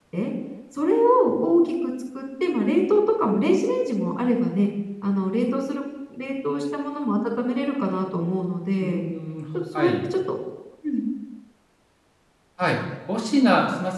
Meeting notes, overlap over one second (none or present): none